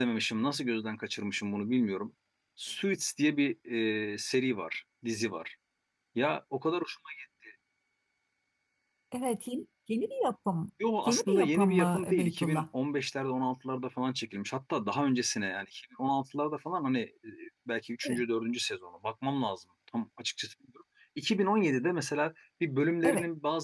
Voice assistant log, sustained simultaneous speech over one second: present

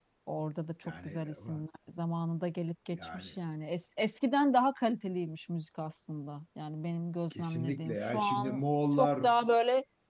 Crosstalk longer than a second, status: present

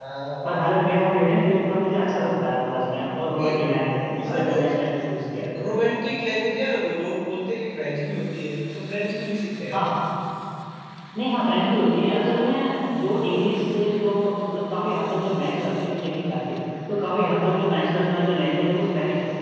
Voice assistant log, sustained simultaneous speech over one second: none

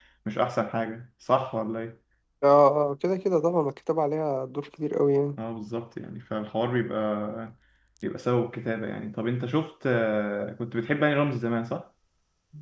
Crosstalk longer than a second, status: none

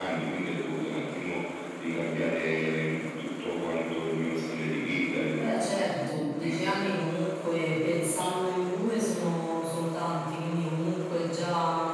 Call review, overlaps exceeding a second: present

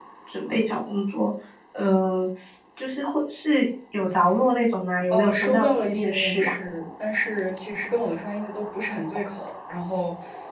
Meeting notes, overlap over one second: present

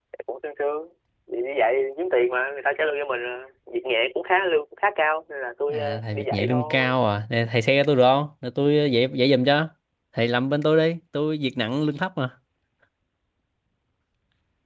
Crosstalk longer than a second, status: present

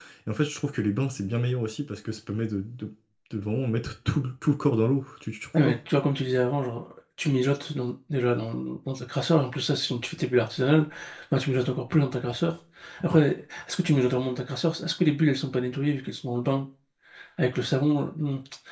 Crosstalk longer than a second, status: none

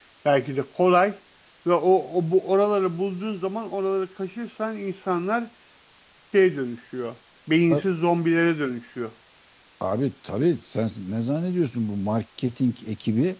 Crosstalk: none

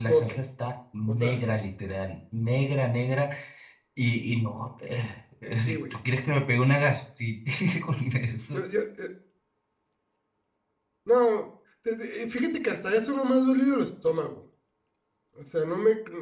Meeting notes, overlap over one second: none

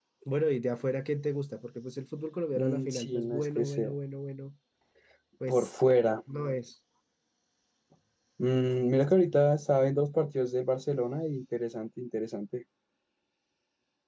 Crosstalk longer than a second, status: present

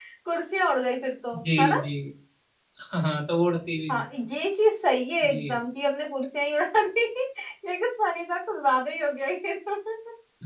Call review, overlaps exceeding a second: none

